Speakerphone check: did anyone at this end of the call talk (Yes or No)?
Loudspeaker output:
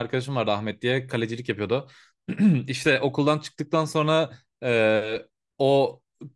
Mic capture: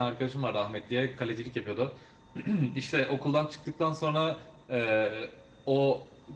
No